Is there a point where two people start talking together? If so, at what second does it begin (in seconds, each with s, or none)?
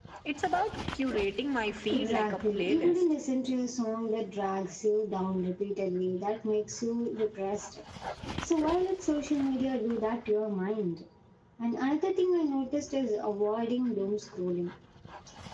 1.9 s